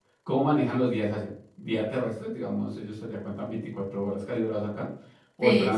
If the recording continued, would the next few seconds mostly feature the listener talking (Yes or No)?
Yes